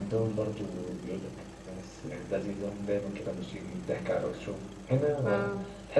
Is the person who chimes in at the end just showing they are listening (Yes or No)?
Yes